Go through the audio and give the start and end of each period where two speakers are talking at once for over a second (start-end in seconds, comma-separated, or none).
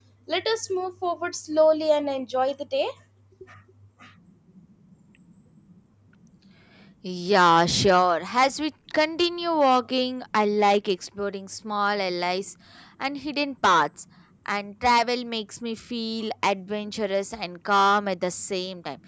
none